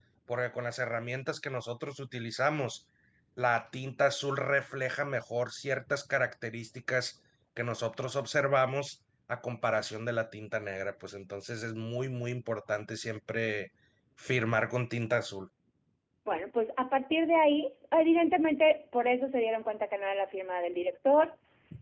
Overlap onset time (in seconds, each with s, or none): none